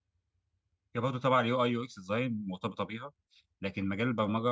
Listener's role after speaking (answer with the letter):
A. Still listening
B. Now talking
A